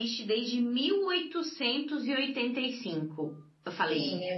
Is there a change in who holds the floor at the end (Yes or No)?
Yes